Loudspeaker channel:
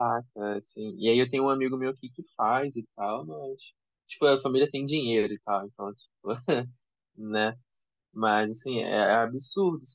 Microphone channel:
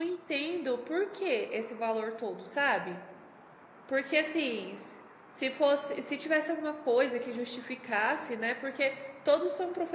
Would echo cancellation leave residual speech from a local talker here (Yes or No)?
Yes